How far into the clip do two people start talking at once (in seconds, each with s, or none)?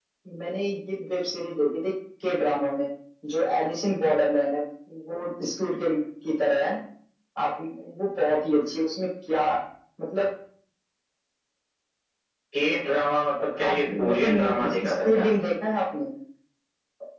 13.6 s